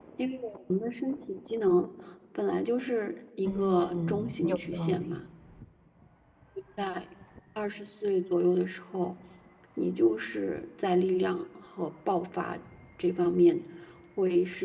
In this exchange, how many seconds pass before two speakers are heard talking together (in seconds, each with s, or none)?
3.4 s